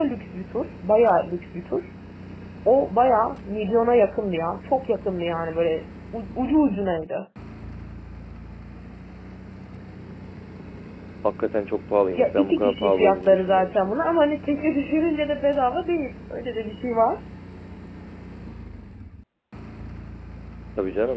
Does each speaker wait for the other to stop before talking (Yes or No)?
No